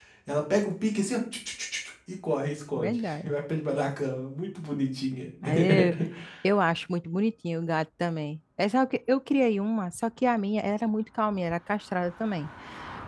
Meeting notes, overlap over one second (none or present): none